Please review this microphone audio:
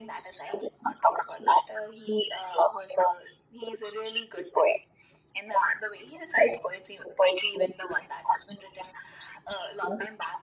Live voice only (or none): none